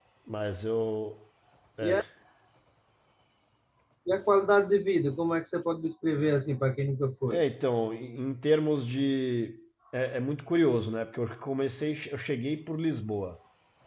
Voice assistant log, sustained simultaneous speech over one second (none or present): none